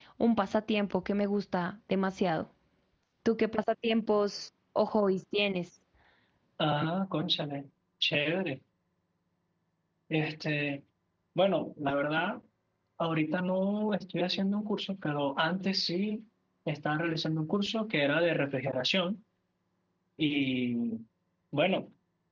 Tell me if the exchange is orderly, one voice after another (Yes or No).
Yes